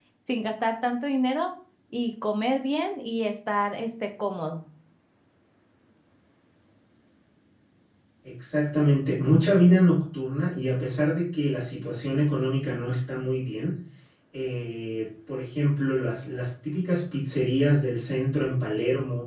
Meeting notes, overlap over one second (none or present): none